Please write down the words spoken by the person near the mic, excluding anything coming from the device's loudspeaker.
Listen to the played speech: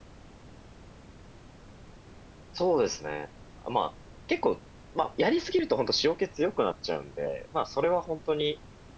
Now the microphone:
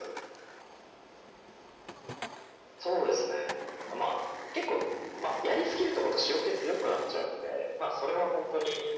none

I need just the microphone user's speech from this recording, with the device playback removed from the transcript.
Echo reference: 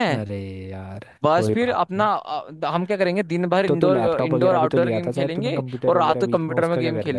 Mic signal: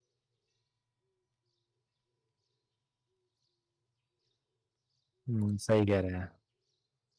हम्म, सही कह रहे हैं

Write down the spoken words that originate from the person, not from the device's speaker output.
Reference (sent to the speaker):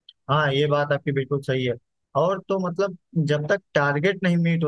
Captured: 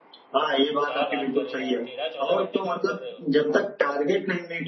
क्या बात कर रहे हो यार तेरह चौदह घंटे काम कर रहे हो

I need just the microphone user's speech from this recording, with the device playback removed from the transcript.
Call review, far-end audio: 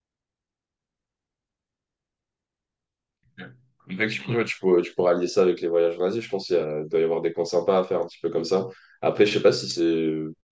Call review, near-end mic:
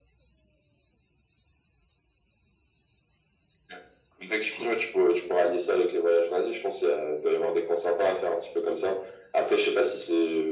none

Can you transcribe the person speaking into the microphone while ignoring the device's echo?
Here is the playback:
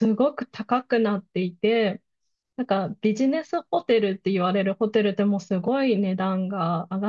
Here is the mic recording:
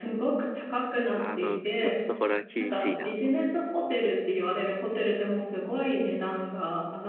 あの、ちょっとこれは厳しいなと

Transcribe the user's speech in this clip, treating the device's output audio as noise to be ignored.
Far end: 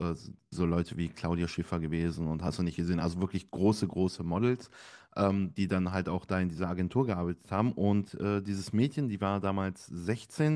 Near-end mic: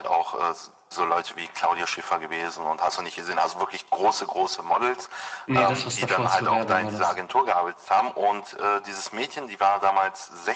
Nee, das, was davor zur Werbung war, das.

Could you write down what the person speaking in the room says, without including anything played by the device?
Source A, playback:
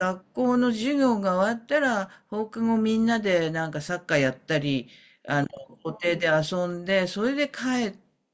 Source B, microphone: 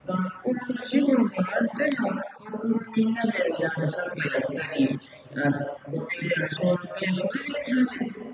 none

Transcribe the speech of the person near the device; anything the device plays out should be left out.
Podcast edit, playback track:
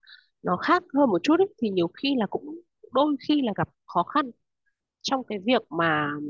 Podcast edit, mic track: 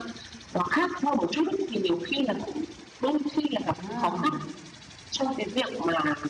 Ừ,

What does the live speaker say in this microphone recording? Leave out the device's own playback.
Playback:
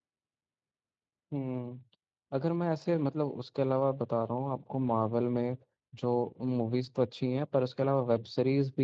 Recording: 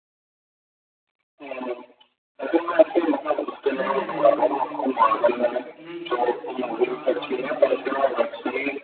नहीं नहीं नहीं नहीं नहीं नहीं नहीं, आ, क्रि- यही क्रि- क्रिस्टोफर नॉ- नॉलन की ही है

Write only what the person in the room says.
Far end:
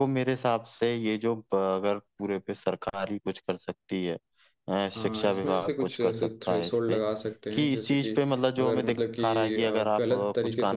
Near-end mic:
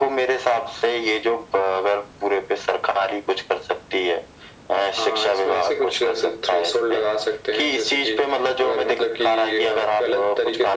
none

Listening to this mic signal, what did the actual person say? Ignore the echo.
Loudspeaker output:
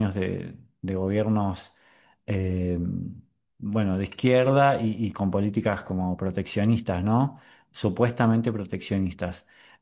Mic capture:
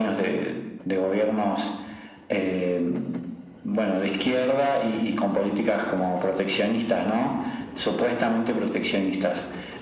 none

